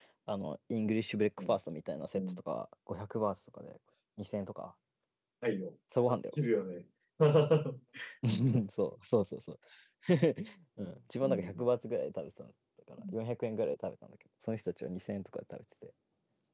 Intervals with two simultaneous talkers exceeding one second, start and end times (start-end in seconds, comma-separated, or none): none